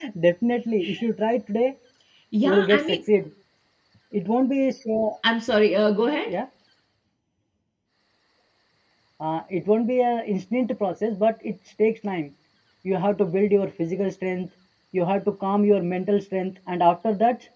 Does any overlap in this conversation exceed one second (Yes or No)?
No